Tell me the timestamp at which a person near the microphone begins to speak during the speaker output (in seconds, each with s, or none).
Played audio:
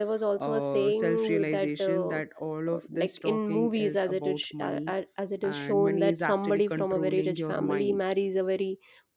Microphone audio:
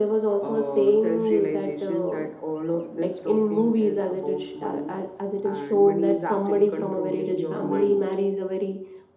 none